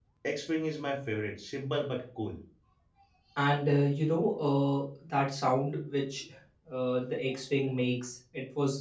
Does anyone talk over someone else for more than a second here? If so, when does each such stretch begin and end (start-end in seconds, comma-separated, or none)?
none